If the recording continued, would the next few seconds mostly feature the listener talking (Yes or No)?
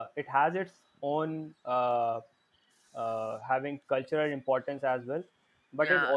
No